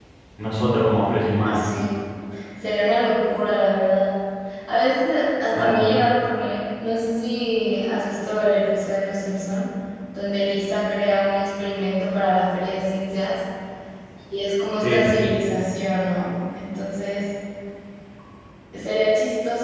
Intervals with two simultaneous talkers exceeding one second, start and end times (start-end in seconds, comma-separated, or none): none